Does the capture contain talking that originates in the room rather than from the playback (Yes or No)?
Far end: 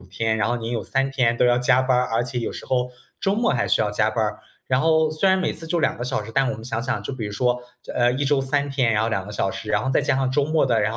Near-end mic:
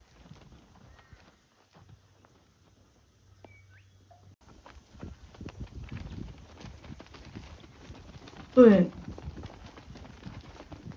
Yes